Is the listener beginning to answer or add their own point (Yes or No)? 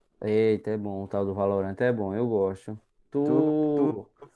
Yes